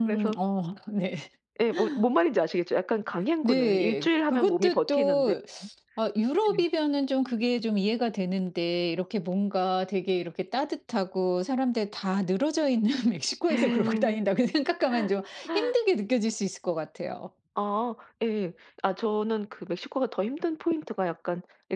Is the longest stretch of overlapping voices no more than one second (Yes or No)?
No